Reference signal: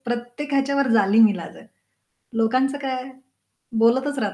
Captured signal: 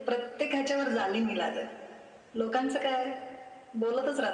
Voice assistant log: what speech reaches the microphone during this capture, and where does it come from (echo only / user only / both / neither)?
echo only